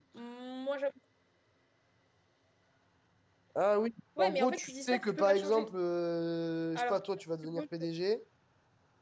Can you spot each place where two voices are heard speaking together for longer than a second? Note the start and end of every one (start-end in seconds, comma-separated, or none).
4.2-5.7